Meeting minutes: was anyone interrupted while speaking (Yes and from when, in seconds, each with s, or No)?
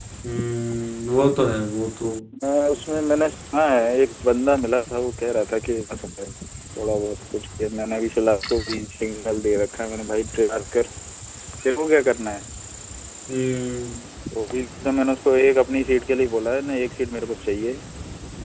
No